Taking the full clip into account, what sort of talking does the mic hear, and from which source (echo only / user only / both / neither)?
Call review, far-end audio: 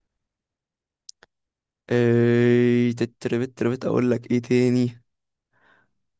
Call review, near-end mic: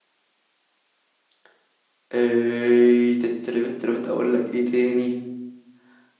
echo only